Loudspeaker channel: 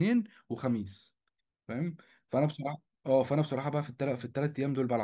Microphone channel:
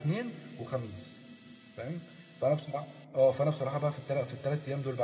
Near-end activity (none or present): none